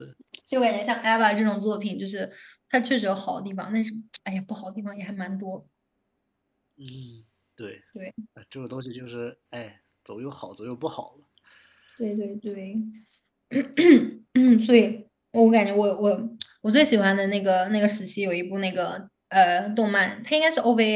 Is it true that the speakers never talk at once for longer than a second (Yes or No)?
Yes